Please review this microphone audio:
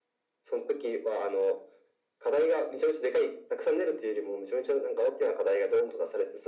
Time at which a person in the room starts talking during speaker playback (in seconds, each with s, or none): none